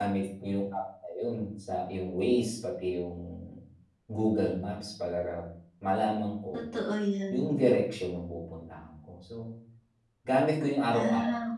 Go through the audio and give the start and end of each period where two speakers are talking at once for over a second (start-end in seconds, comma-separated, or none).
none